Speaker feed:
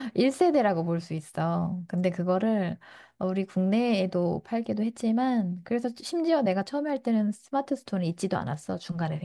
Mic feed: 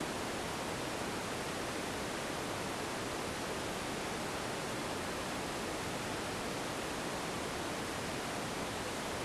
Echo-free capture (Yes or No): Yes